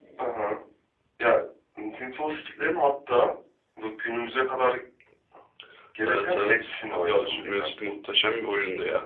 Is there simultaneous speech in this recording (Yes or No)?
Yes